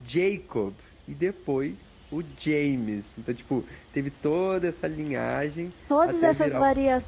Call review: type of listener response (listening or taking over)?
taking over